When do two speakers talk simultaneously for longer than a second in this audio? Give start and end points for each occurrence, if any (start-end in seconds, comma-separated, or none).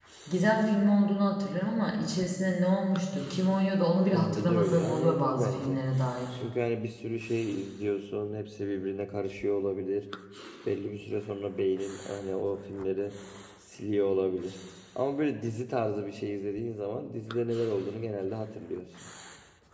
4.1-5.8